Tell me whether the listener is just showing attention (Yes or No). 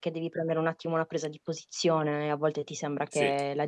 Yes